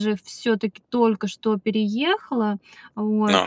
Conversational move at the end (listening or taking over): listening